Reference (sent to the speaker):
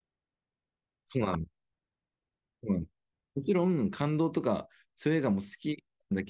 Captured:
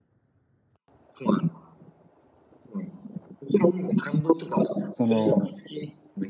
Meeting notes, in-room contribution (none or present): present